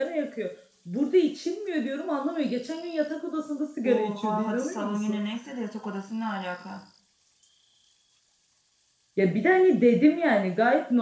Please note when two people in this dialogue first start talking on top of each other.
3.8 s

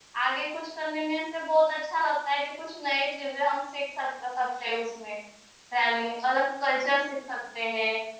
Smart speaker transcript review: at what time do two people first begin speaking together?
none

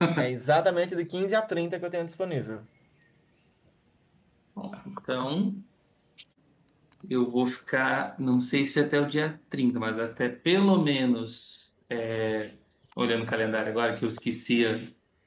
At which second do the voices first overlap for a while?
none

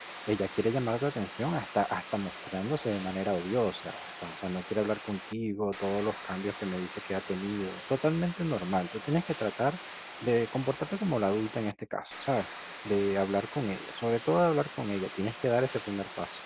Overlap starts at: none

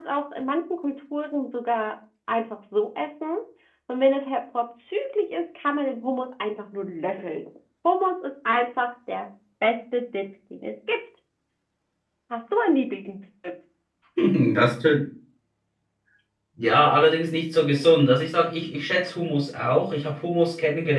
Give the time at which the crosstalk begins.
none

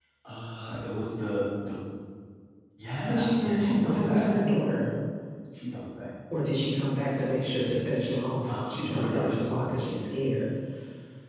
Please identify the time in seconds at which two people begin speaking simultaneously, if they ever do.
3.0 s

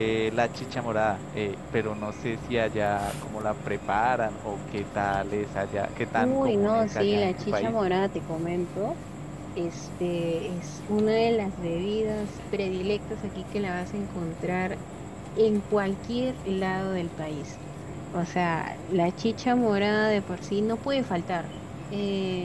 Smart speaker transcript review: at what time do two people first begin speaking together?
6.2 s

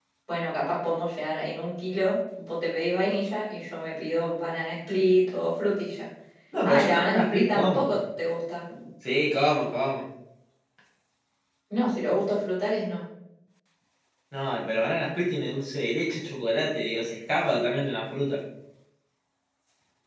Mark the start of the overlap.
6.7 s

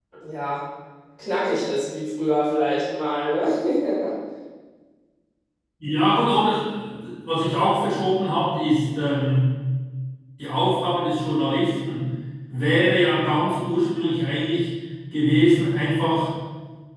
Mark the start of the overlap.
none

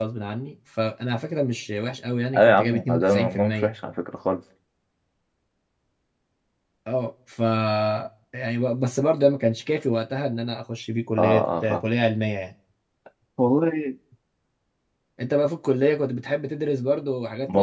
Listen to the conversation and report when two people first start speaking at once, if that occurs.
2.3 s

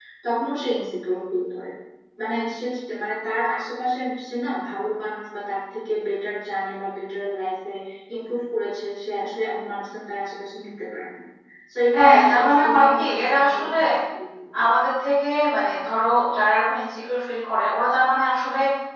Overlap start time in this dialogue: 11.9 s

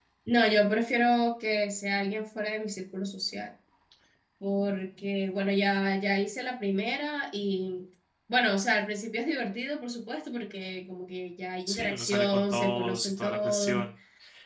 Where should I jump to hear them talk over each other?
11.7 s

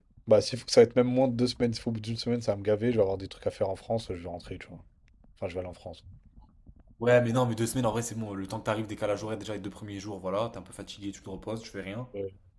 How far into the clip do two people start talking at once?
none

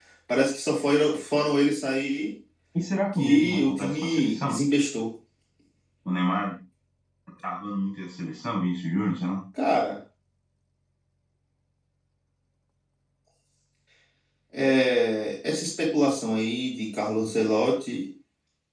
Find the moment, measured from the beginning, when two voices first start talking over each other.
3.1 s

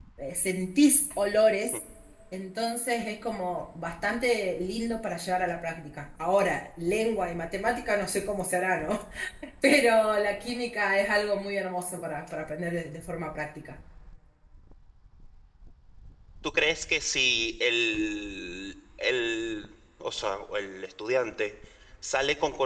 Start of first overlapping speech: none

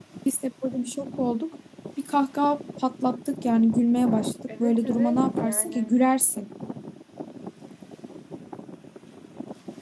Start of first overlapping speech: 4.5 s

